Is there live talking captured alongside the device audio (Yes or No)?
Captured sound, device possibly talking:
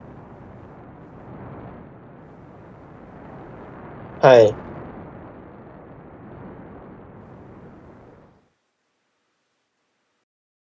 Yes